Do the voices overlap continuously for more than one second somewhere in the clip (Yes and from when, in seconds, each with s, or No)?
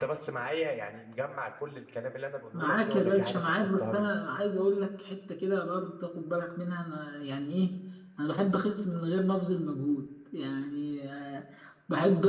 Yes, from 2.5 s